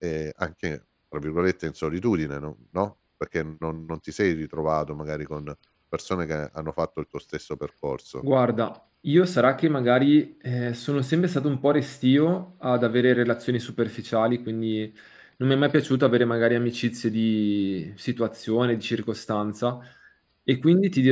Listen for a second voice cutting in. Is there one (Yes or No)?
No